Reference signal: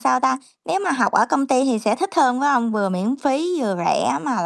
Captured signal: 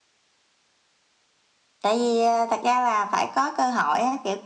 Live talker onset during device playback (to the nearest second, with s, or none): 2 s